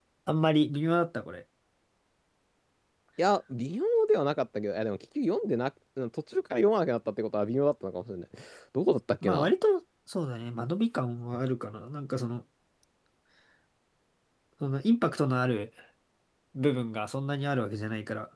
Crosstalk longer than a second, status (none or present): none